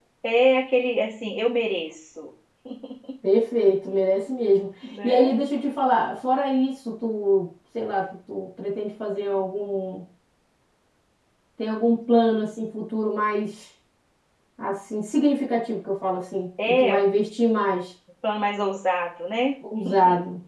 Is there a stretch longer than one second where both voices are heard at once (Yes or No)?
No